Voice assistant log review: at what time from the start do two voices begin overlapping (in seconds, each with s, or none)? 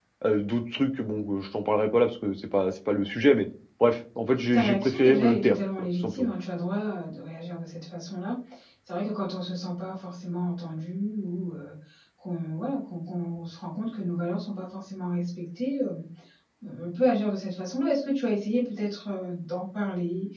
4.2 s